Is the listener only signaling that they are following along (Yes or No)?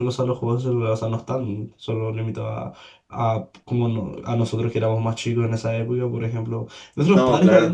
Yes